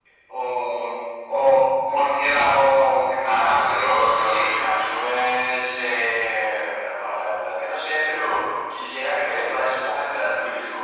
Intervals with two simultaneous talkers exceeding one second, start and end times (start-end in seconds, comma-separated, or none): 3.2-4.5